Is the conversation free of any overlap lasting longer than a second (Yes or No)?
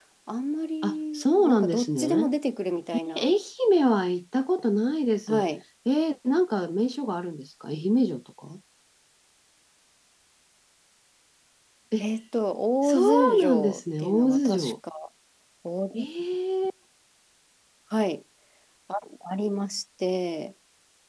No